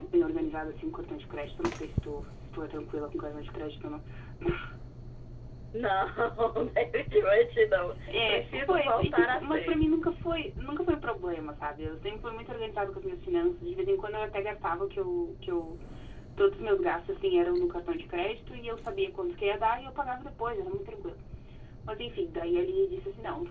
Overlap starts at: 8 s

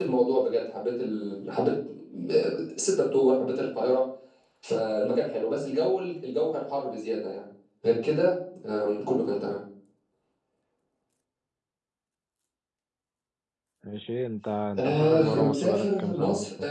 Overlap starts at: 15 s

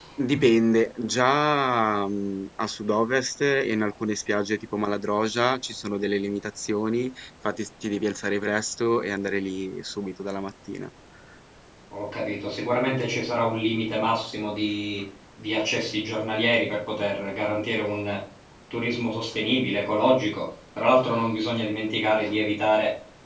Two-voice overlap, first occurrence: none

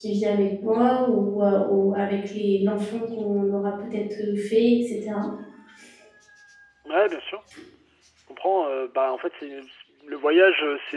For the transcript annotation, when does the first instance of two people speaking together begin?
none

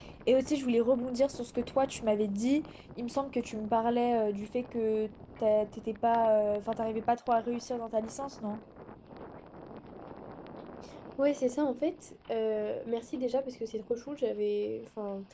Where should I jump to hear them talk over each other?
none

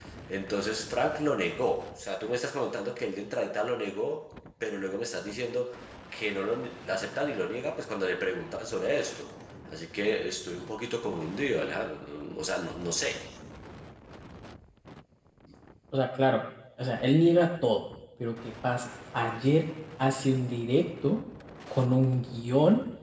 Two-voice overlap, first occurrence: none

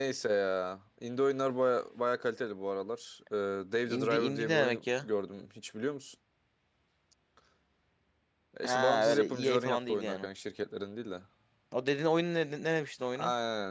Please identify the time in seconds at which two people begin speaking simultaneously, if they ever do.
4 s

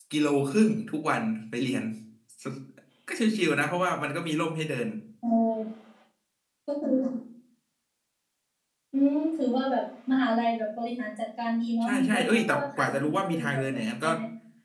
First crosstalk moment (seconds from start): 12 s

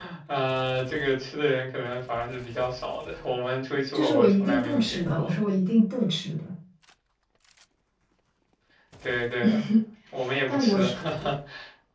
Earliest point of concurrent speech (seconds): 4 s

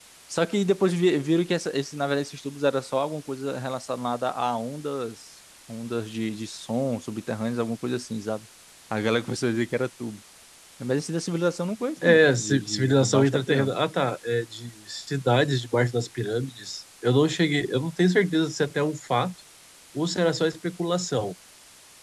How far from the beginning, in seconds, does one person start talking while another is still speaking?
12 s

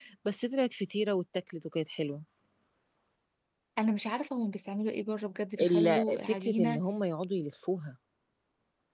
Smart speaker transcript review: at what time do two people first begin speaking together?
6 s

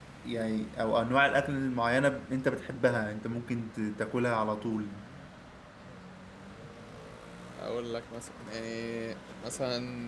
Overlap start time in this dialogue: none

